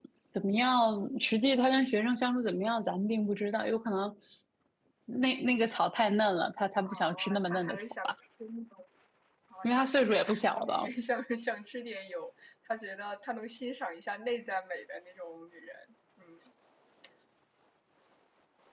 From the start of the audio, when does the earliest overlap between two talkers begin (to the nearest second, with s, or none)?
7 s